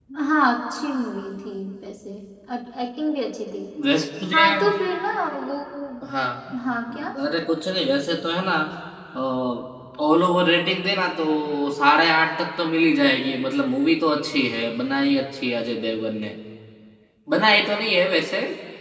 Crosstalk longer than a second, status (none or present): none